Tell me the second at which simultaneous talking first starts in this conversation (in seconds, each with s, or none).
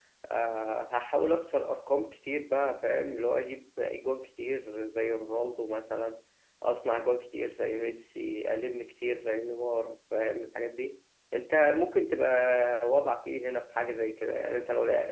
none